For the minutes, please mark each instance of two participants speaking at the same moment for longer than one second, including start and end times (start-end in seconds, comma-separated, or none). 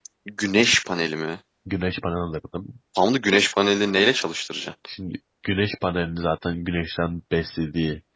none